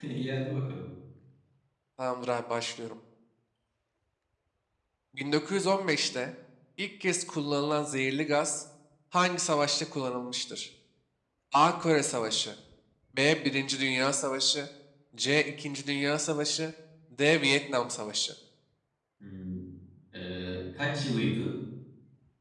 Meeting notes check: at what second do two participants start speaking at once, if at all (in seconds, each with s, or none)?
none